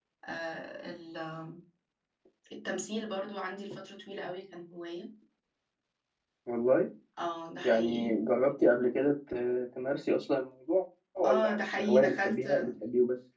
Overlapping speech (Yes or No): Yes